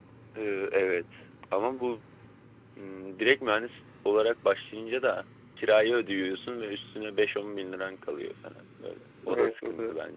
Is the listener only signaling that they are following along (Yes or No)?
No